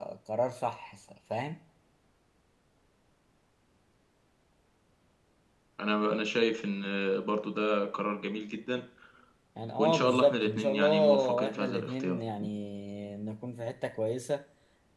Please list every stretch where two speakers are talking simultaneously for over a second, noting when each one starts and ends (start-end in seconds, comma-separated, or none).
9.8-12.2